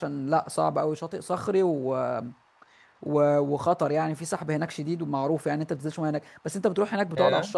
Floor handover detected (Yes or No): No